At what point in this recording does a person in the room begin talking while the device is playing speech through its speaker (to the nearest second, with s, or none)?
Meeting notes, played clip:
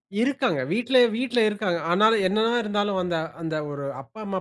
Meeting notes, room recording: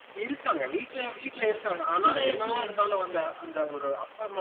2 s